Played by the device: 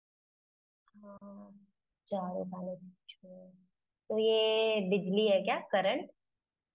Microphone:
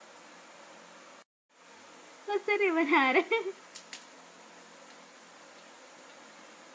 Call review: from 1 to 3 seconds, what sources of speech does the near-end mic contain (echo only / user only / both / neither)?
user only